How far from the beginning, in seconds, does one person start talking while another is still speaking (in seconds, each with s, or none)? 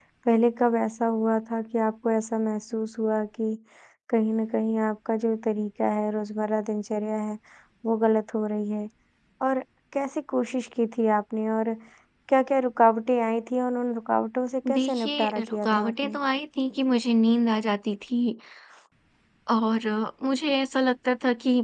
14.6 s